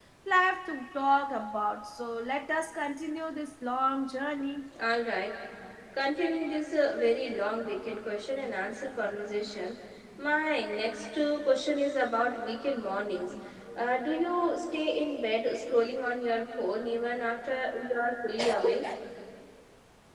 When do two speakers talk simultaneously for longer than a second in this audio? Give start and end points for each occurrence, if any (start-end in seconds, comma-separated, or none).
none